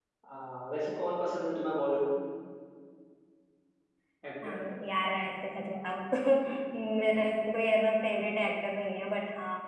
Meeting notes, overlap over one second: none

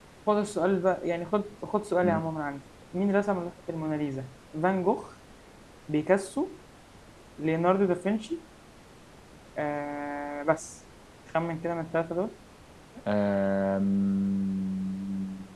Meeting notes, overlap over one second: none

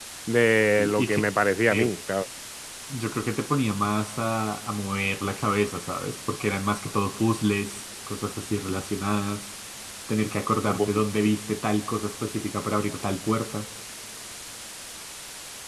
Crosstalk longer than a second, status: none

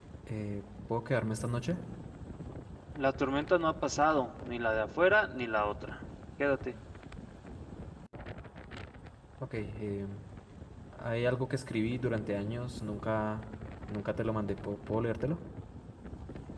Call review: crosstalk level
none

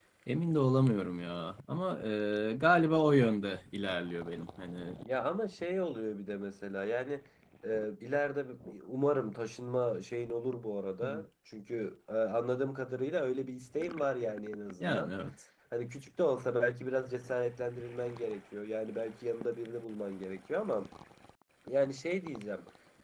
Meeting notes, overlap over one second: none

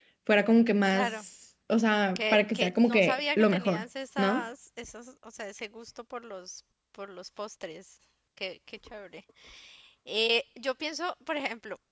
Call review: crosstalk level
present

